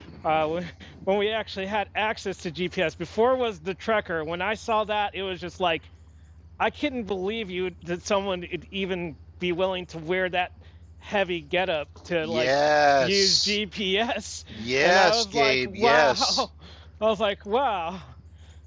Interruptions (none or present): present